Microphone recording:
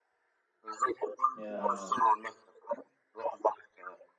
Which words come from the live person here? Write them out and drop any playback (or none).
يا